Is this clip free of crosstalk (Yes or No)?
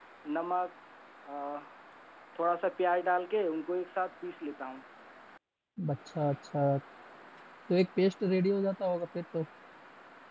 Yes